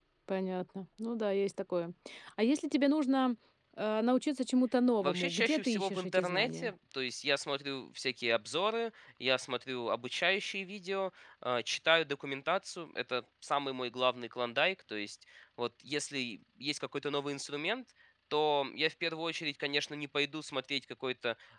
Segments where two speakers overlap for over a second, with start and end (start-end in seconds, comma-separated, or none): 5.0-6.7